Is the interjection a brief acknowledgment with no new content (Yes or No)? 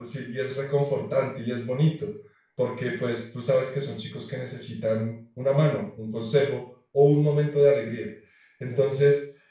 Yes